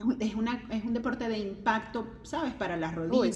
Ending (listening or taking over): listening